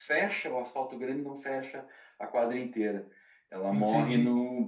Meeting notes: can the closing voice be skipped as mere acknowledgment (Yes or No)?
Yes